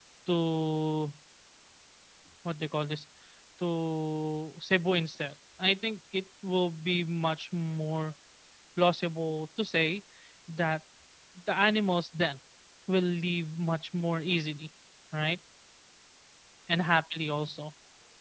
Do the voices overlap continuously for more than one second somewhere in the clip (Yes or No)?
No